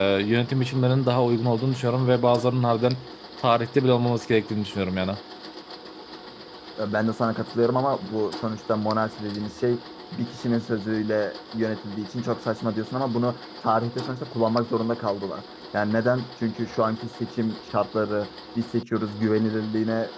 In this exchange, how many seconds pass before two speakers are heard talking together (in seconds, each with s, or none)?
none